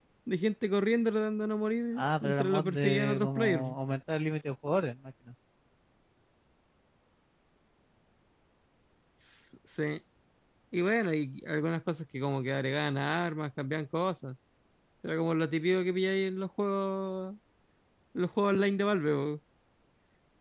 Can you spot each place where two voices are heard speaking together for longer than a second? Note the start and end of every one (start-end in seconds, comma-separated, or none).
2.0-3.8